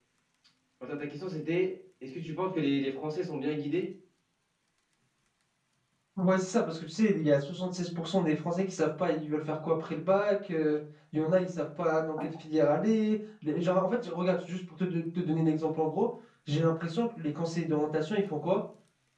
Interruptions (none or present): none